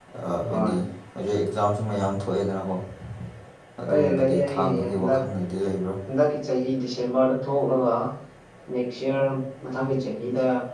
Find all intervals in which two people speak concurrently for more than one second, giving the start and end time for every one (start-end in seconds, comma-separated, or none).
3.9-5.2